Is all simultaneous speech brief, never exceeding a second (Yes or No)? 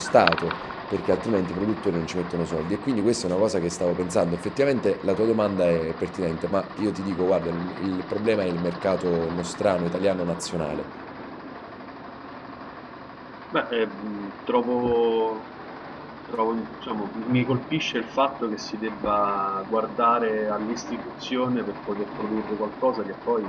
Yes